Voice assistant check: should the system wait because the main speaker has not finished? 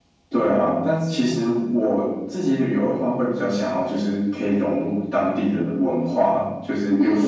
Yes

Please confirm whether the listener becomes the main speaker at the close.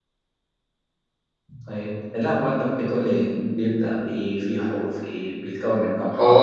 Yes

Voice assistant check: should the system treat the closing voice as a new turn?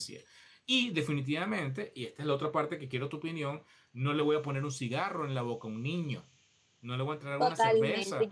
Yes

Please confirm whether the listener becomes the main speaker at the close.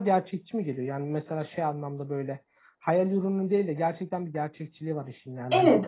Yes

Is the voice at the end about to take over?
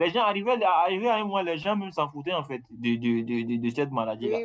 Yes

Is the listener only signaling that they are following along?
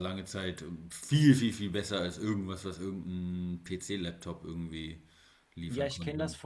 No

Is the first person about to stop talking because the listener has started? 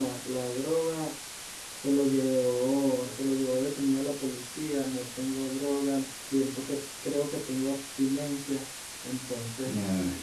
Yes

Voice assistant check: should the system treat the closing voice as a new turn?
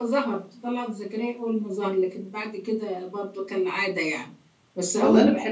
Yes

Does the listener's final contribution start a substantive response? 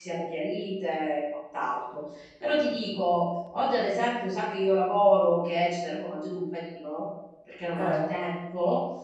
No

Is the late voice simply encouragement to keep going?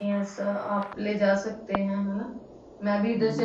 No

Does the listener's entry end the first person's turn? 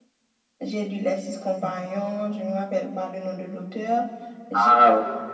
No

